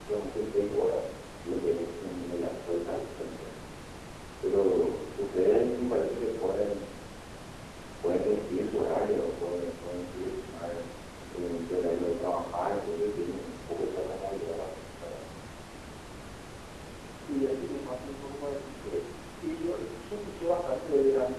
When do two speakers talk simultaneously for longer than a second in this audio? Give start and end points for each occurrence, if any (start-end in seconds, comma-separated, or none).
none